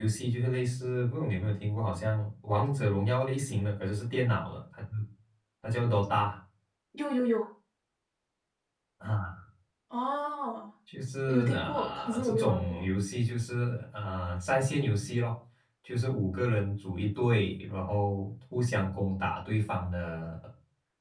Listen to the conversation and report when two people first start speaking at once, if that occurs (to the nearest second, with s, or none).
11 s